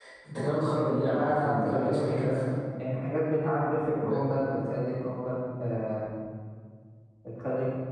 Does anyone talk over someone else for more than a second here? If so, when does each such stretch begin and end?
1.1-2.4

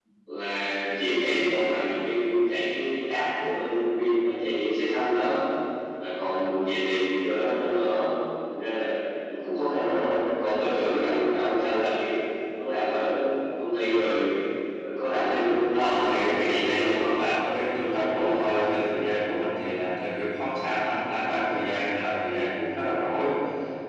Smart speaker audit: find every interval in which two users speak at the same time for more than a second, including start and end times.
15.7-17.1

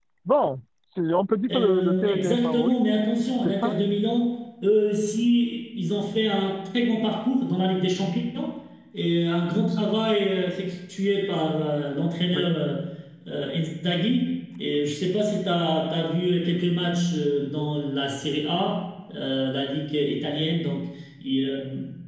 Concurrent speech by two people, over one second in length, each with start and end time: 1.5-2.8

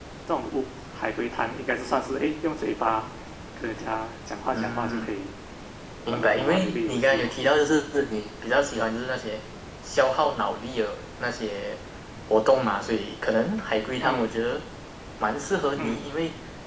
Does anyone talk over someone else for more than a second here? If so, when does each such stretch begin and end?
6.1-7.4

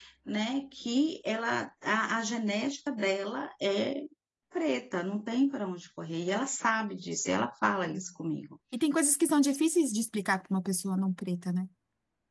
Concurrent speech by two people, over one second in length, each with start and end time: none

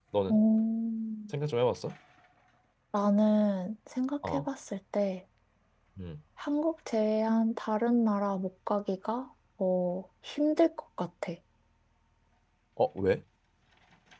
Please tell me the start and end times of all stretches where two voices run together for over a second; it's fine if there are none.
none

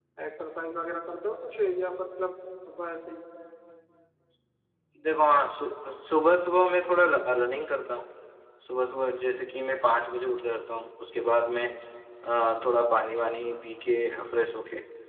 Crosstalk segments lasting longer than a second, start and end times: none

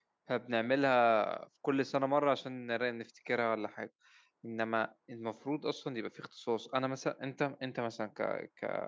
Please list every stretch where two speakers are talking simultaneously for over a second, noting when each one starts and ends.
none

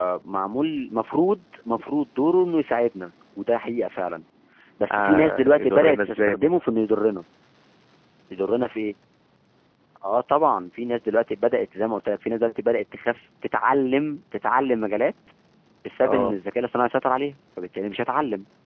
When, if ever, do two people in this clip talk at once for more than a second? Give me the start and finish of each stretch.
4.9-6.6

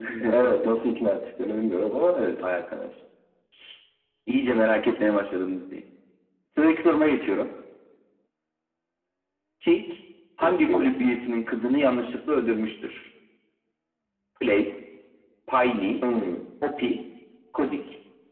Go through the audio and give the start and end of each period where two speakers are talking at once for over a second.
none

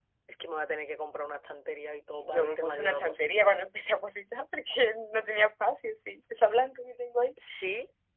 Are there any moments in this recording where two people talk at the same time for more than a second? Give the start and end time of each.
2.2-3.6

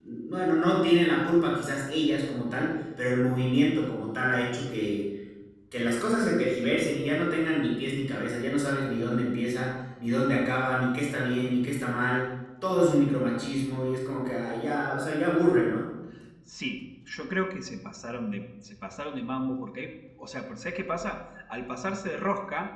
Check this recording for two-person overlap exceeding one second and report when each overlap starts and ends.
none

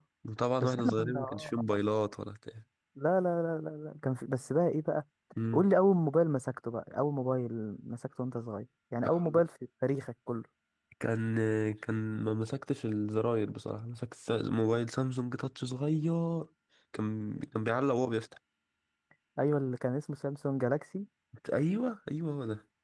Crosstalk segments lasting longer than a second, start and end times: 0.6-2.0

